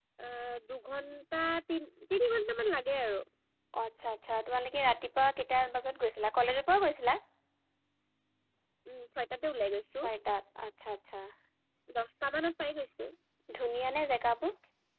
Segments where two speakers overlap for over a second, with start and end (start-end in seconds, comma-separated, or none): none